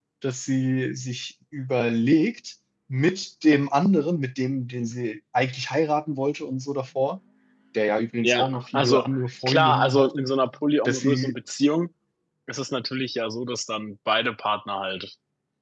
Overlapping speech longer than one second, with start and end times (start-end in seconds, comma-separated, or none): 8.2-10.0